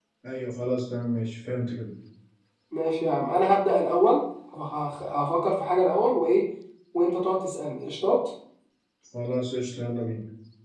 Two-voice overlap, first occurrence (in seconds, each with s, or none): none